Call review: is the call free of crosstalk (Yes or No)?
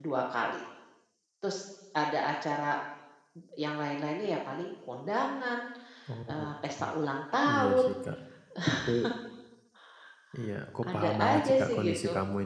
No